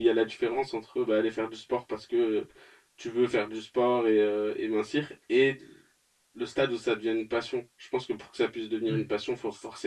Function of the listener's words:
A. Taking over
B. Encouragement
B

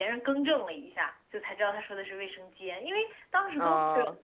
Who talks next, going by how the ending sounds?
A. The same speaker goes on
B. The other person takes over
A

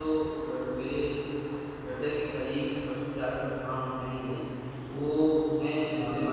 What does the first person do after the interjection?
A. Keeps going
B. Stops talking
A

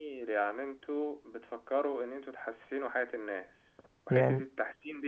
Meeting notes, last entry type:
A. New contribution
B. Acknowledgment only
B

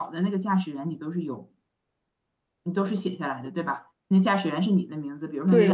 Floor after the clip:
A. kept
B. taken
B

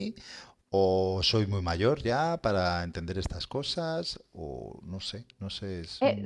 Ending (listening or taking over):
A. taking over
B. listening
A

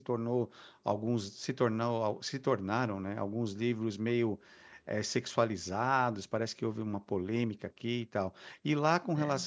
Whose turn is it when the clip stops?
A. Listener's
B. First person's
B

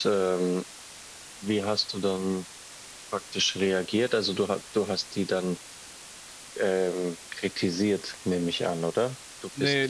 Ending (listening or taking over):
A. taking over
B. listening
A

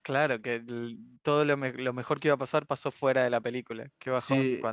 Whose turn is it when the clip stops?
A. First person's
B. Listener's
B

